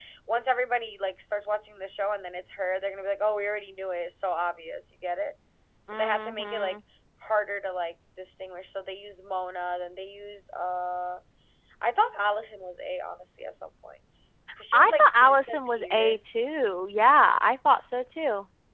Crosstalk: present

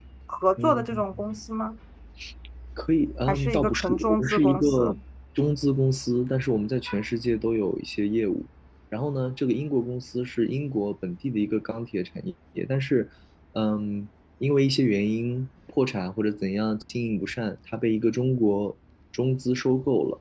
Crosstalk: present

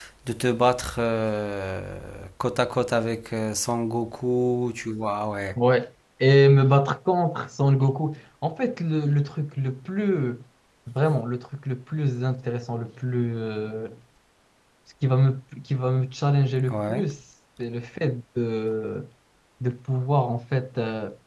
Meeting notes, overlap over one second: none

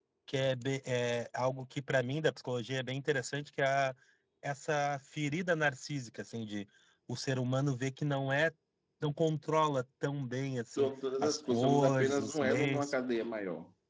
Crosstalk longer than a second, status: present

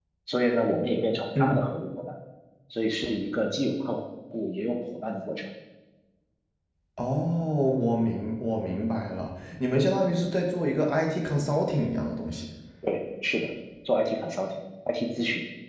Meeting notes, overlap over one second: none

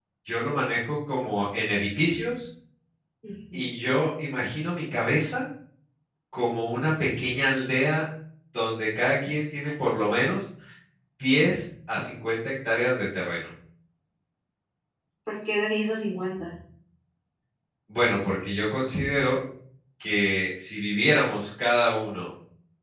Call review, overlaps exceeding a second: none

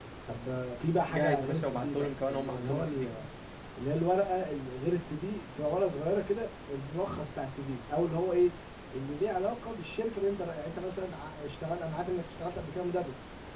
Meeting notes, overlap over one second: present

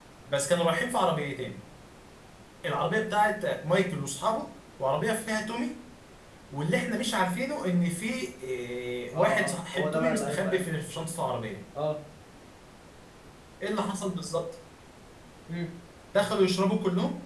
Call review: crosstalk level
present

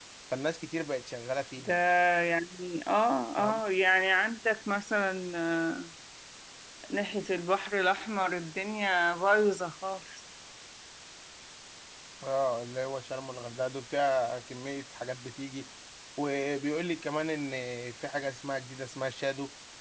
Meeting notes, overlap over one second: none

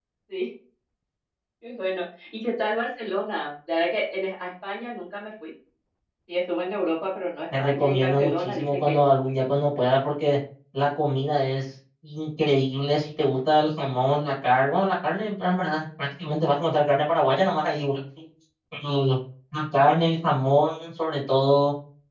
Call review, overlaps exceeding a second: present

